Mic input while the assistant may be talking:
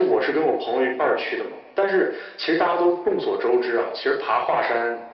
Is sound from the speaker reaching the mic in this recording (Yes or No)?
Yes